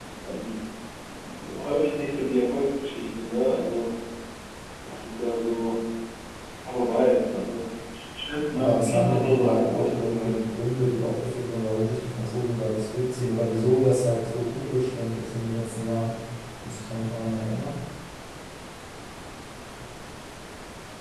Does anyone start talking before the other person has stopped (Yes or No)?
Yes